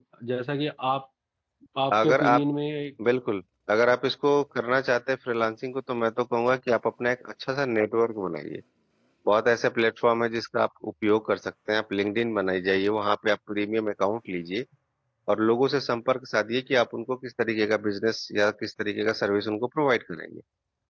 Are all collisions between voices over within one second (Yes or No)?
Yes